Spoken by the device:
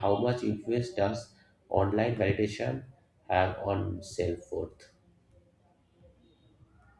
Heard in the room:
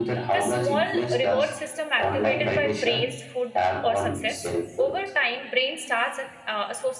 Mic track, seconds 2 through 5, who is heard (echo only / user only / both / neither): both